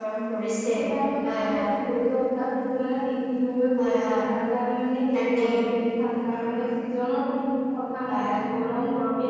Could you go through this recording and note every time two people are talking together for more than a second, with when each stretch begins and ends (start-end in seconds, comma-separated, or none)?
none